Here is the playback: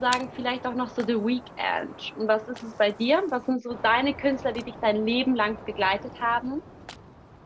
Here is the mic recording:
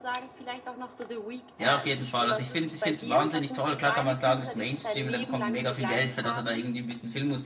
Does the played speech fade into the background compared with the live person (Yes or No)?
Yes